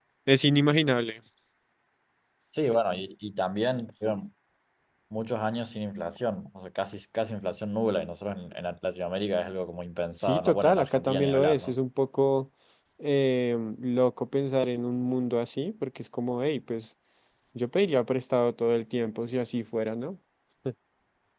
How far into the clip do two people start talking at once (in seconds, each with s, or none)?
10.2 s